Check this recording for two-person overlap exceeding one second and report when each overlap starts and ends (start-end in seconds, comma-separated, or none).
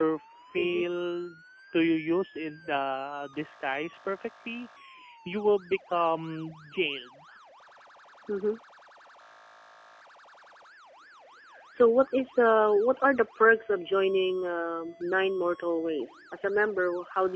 none